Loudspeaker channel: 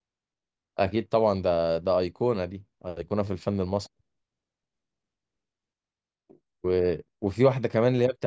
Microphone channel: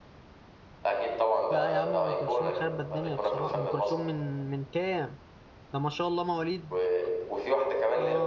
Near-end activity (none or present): present